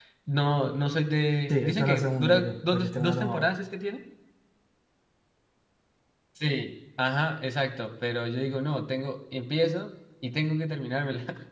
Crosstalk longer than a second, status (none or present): present